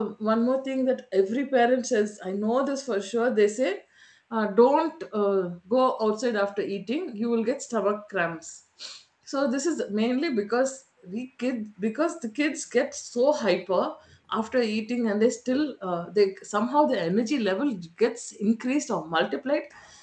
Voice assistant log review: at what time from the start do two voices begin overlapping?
none

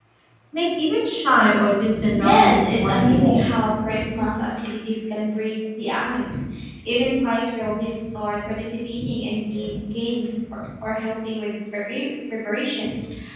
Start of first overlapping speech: 2 s

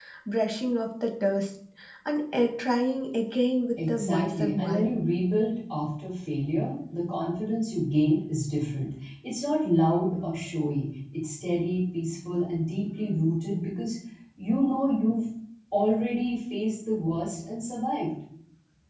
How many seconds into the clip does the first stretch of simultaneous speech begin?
4 s

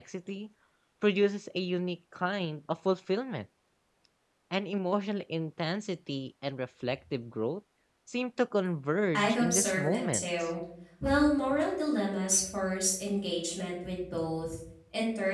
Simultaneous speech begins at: 9 s

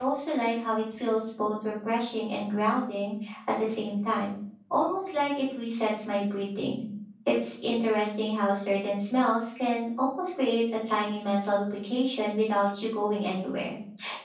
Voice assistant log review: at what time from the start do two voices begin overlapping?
none

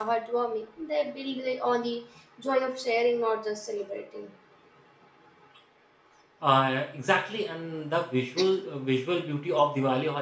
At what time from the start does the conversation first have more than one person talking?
none

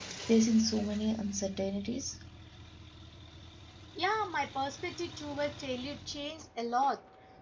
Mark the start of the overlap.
none

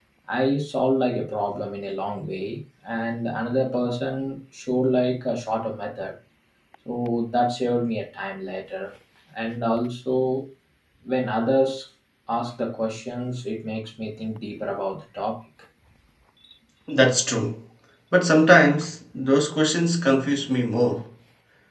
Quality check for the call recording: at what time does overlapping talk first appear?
none

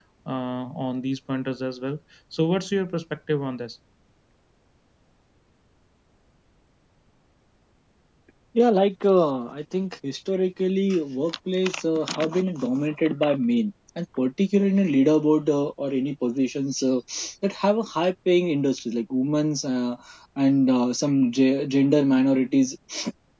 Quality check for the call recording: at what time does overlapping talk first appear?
none

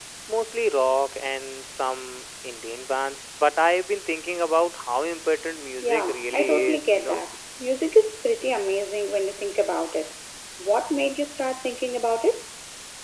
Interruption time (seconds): 6 s

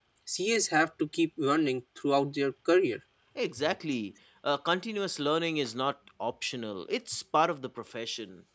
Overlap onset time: none

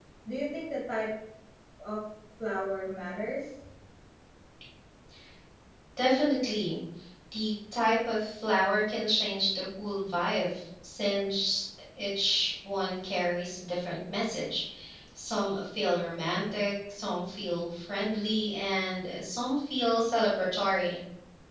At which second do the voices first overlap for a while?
none

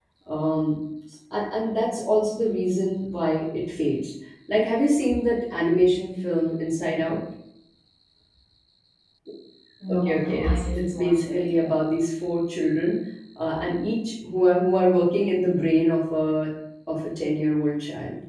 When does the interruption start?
10 s

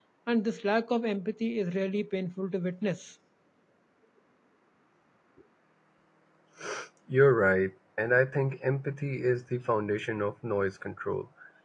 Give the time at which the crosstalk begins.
none

